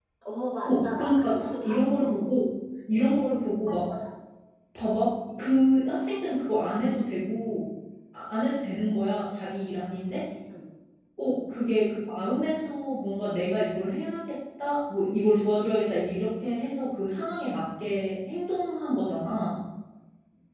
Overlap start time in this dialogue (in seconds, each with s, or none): 0.6 s